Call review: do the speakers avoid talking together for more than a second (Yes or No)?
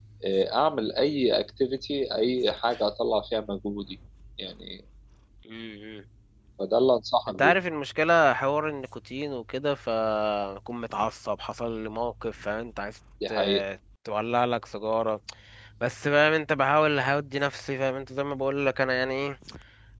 Yes